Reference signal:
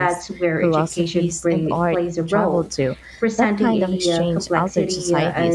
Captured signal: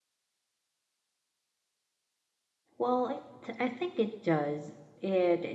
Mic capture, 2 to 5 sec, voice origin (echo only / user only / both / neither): user only